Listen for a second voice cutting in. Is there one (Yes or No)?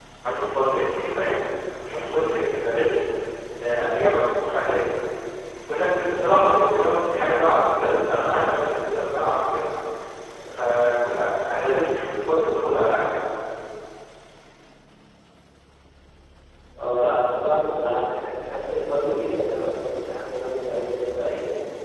No